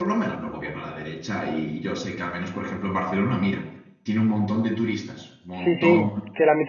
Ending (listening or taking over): taking over